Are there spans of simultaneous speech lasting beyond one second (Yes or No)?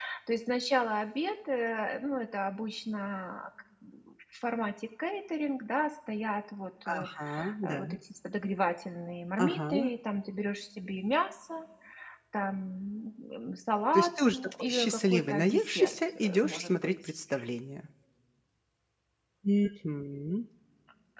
Yes